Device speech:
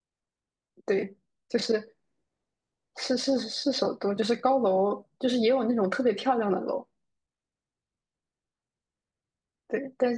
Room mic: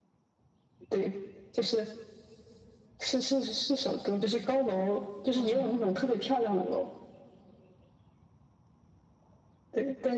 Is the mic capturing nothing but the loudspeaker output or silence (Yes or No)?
No